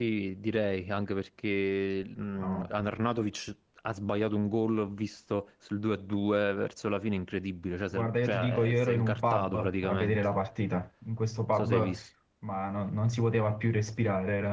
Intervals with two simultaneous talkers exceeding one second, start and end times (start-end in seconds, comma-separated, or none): 7.9-10.3